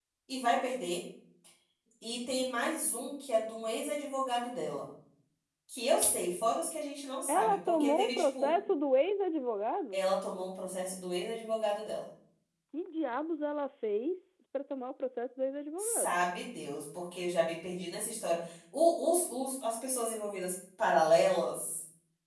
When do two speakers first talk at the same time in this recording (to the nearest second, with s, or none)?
7 s